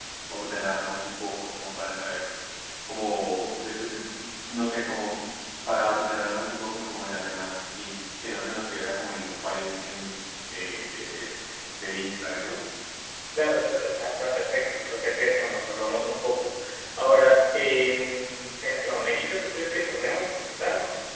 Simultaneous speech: No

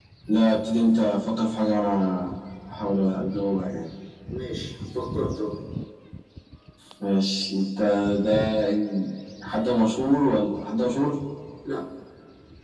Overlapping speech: No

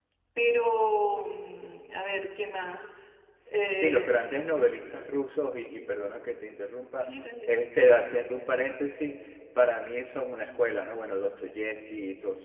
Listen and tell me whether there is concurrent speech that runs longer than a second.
No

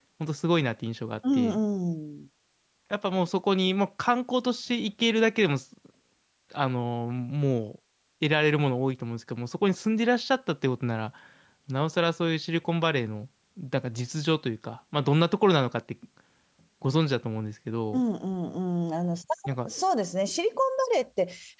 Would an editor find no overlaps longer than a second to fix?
Yes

